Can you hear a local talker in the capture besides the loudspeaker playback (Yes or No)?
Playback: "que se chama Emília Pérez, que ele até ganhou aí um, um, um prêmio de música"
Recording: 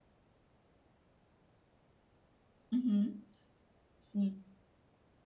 Yes